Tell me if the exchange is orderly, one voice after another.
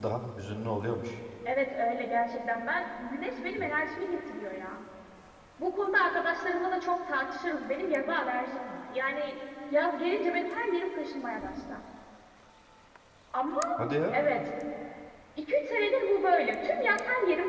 Yes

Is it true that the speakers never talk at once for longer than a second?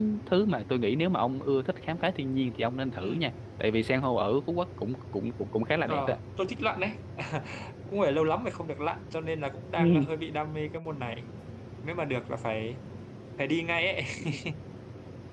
Yes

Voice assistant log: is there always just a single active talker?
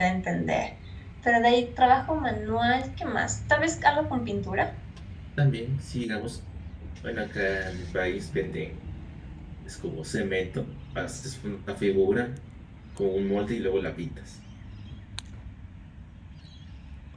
Yes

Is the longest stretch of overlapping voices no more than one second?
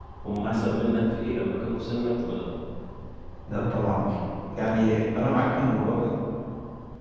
Yes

